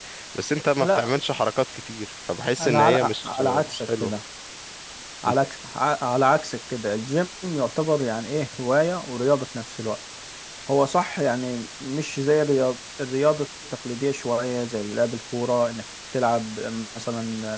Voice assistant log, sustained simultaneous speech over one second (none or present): present